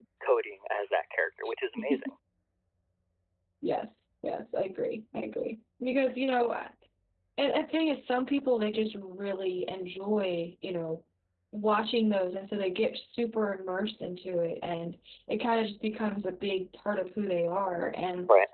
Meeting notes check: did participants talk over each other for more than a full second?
No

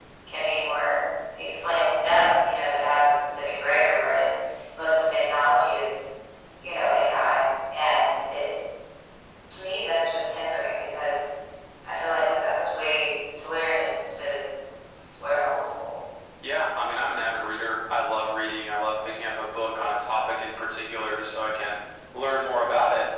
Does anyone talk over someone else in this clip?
No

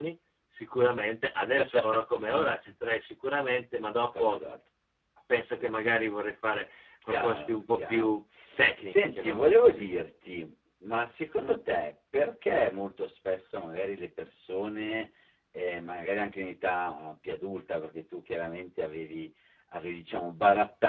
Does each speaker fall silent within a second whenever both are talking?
No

